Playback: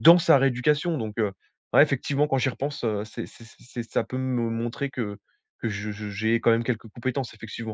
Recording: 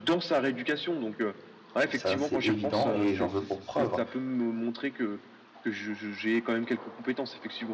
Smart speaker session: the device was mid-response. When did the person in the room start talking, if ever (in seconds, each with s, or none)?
1.9 s